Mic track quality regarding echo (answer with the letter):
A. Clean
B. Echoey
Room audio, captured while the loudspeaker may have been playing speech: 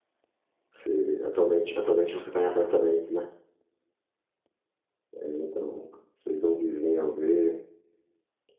A